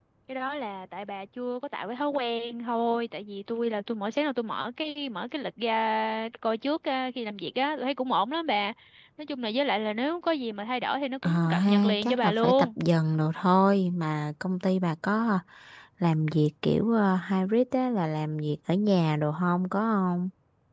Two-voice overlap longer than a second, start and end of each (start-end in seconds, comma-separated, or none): 11.2-12.7